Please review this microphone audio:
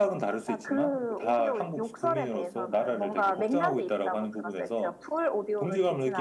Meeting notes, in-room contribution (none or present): present